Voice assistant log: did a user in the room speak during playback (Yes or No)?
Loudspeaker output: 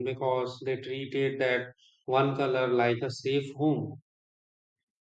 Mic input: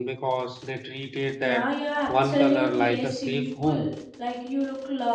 Yes